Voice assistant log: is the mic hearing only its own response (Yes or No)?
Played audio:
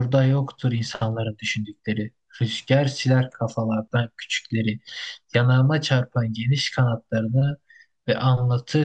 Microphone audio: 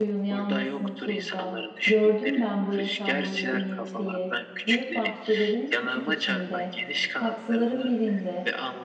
No